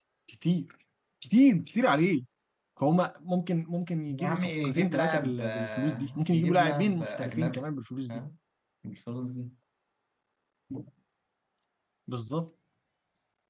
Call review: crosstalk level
present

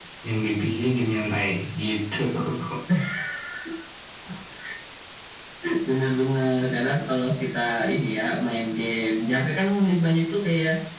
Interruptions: none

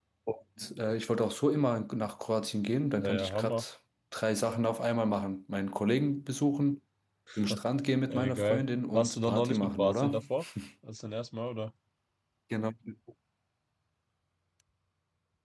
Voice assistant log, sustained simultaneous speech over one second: present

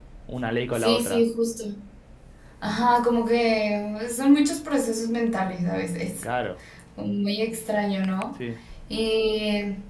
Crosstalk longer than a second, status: none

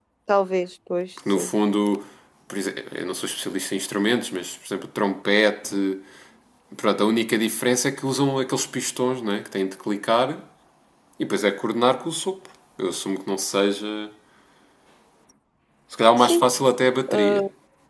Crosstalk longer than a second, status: none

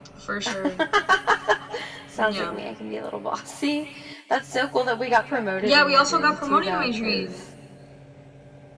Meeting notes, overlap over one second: present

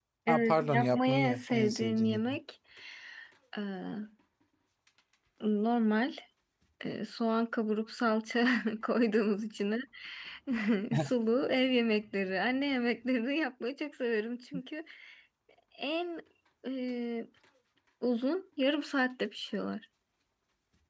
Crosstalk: present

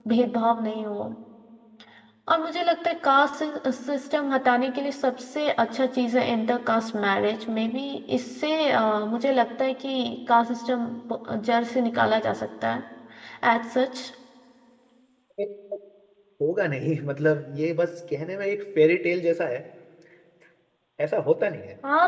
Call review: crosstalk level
none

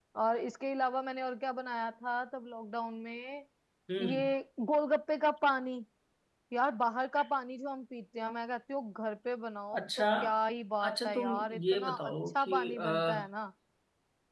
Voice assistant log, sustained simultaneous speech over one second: present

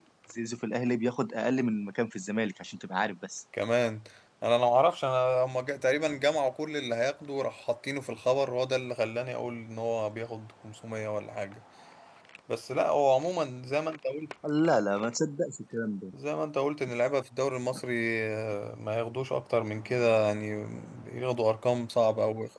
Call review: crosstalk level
none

